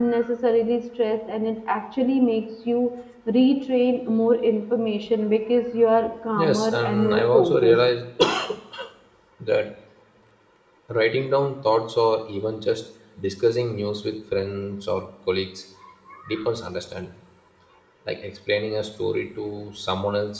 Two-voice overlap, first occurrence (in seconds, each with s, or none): 6.3 s